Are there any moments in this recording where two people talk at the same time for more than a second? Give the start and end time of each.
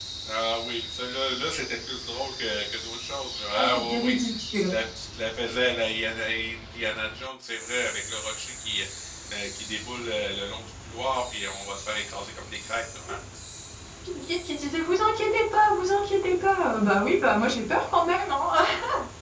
3.5-4.8

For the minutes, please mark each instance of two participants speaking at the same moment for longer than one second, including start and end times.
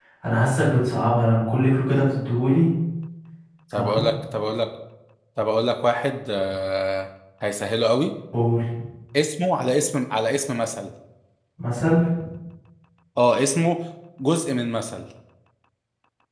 none

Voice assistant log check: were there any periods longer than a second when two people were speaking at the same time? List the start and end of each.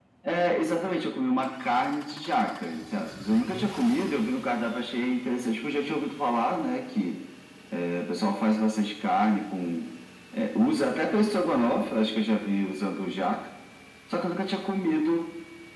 none

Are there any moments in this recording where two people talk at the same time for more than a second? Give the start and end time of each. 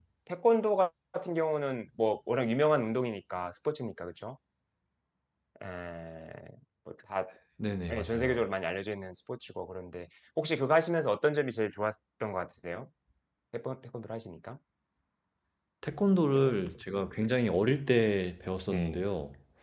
none

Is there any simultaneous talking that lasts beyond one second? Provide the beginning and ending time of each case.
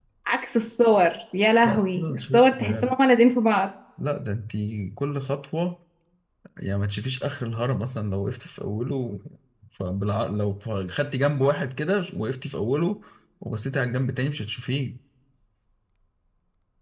1.6-2.9

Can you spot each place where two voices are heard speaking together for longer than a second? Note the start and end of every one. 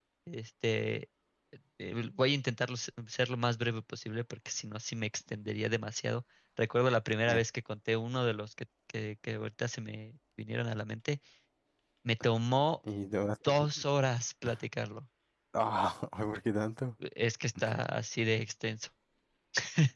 none

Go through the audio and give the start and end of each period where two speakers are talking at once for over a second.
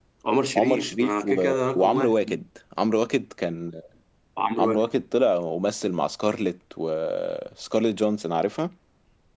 0.6-2.2

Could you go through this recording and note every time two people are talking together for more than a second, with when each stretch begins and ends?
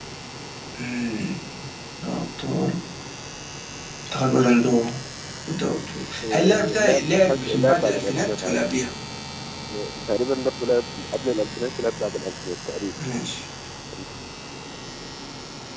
6.2-8.6

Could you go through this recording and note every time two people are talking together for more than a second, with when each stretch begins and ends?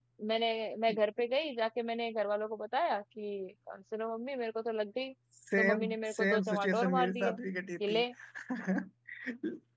5.6-7.4

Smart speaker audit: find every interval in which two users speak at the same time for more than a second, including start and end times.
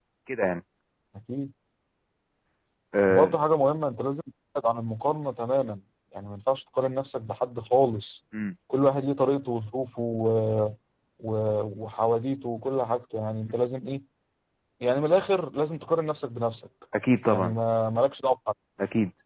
none

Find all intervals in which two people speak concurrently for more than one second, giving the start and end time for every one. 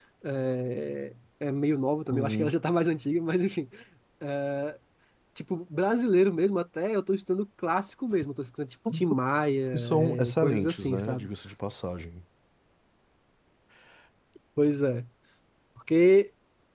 9.7-11.3

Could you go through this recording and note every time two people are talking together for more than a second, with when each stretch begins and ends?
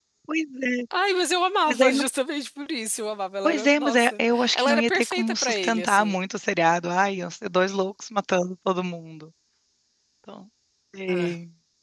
3.4-6.2

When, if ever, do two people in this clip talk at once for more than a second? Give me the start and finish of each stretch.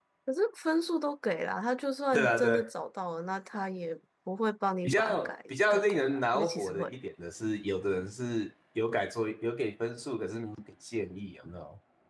4.8-6.9

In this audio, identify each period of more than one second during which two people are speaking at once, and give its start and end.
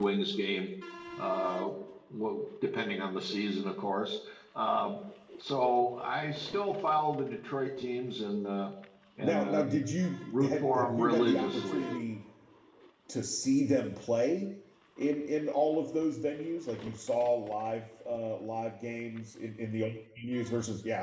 10.4-11.9

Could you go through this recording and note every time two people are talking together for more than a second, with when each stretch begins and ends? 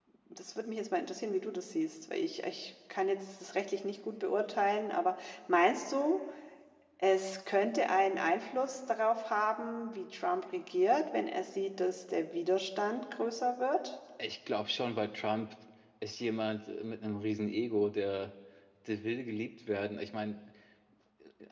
none

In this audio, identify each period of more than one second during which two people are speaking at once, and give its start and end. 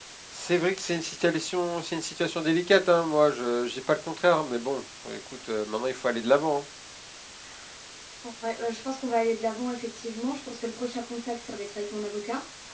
none

